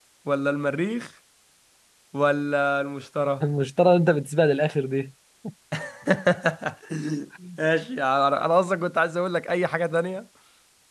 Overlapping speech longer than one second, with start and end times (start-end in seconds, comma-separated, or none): none